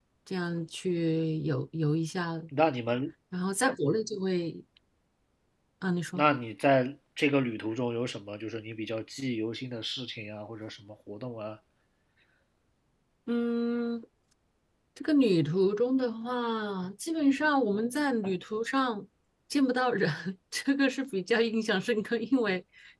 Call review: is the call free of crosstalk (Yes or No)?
Yes